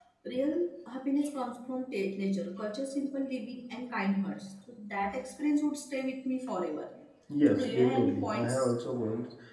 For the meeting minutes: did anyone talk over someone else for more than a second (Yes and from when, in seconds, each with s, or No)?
Yes, from 7.5 s